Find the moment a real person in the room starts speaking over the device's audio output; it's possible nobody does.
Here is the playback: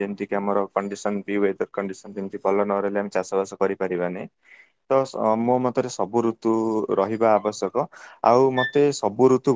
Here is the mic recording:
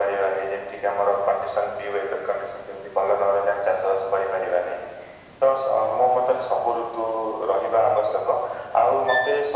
none

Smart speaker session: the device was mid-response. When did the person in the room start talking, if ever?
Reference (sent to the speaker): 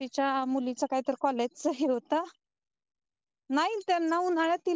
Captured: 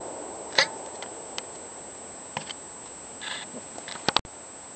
none

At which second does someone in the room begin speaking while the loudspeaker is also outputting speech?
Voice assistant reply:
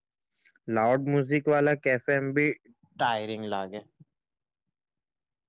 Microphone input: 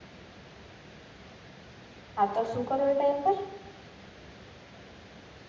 2.2 s

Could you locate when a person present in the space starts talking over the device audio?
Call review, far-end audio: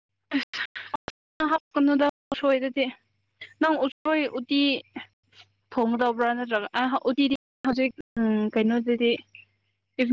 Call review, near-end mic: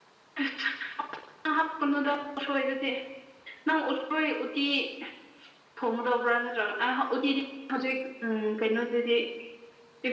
none

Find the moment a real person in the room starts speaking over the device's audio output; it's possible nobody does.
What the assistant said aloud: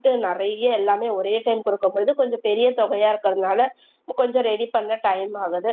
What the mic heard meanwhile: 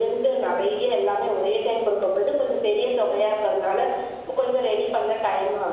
none

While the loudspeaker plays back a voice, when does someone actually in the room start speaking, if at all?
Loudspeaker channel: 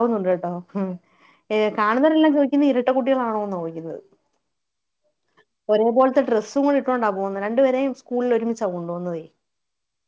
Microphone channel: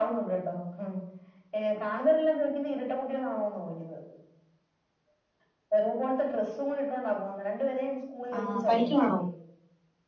8.4 s

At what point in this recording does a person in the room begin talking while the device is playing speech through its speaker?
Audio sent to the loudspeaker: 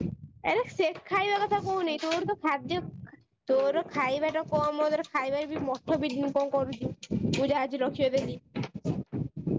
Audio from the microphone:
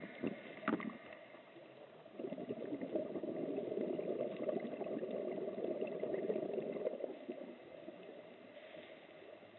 none

